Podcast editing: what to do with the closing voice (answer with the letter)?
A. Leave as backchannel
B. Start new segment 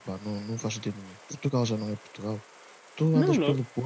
A